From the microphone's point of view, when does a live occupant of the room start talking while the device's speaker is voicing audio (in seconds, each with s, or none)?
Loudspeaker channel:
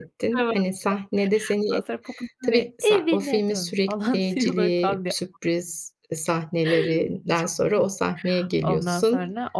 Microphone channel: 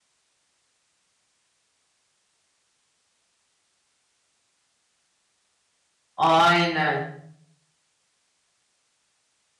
6.2 s